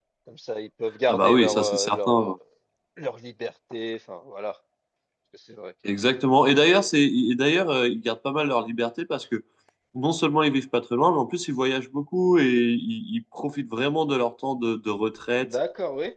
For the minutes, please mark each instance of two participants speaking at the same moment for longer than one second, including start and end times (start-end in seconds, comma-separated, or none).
1.1-2.3